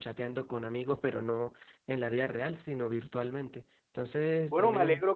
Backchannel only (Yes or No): No